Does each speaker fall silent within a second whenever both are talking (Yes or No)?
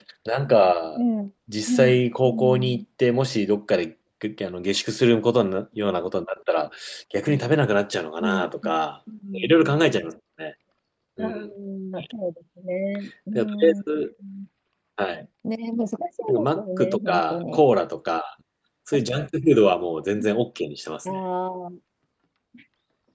No